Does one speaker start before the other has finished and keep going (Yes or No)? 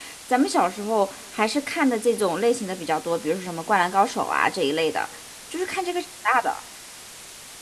No